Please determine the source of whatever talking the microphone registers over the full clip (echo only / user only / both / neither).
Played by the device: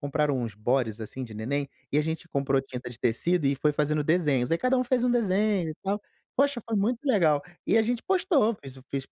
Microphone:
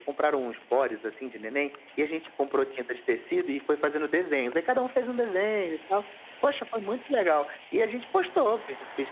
echo only